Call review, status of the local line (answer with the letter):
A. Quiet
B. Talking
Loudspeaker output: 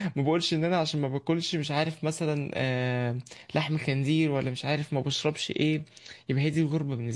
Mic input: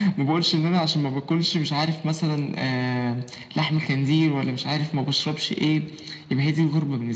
A